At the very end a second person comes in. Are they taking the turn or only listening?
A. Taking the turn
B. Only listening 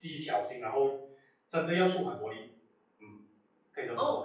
A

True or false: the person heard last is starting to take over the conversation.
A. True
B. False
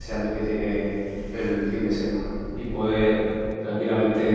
B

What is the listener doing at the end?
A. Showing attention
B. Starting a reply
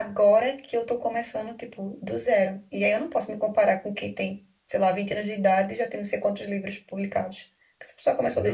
B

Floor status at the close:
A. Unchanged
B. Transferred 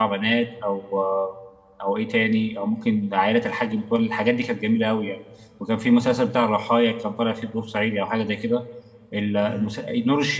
A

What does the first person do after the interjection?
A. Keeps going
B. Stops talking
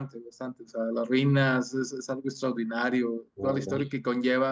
A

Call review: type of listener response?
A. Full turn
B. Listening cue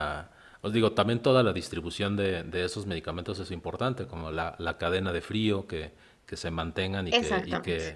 B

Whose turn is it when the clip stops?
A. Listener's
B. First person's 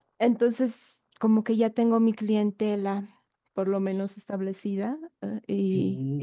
A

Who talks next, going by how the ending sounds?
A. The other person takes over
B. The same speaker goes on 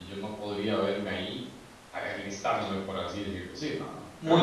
B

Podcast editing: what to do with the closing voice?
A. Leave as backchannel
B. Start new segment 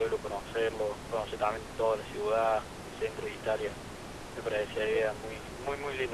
A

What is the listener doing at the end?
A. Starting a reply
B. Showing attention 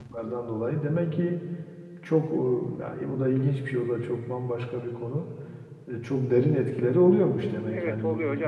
A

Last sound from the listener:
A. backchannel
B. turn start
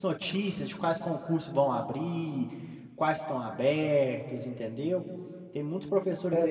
B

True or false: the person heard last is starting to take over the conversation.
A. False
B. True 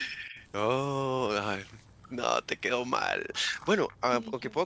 A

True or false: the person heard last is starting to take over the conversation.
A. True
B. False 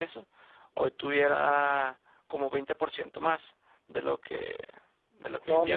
A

